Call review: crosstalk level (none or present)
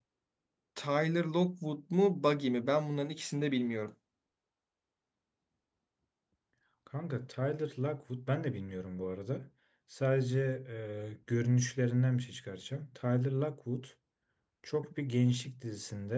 none